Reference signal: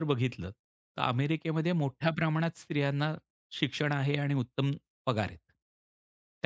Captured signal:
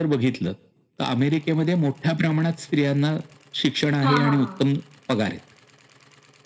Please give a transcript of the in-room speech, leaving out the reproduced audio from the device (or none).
हां, हां, हां.